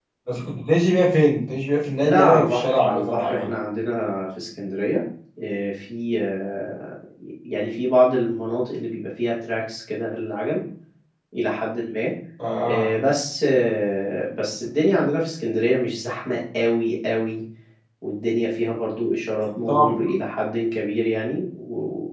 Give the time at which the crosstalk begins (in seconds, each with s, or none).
2.0 s